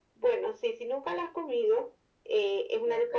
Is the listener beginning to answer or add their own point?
No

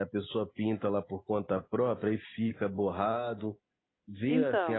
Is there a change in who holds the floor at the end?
Yes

